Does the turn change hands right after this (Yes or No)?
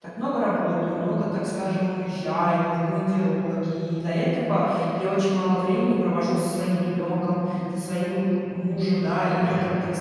No